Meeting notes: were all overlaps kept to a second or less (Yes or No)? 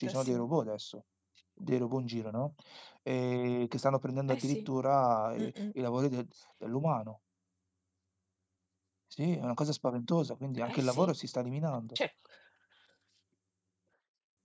Yes